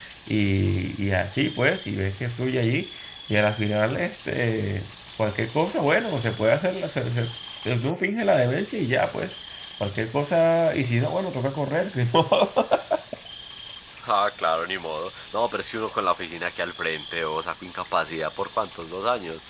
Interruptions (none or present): none